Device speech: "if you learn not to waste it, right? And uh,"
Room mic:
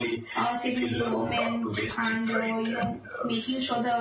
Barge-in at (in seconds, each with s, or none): 0.3 s